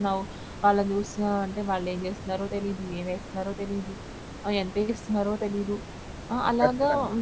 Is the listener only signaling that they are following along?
Yes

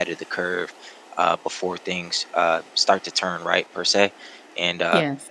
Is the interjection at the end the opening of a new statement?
No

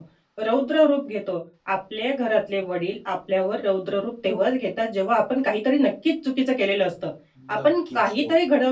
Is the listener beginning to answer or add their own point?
No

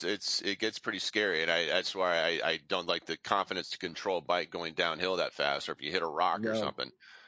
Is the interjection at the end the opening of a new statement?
No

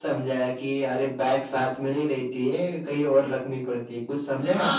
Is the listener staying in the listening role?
No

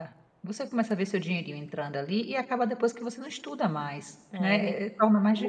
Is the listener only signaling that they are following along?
No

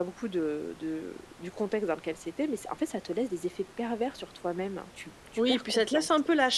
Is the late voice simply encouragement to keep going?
No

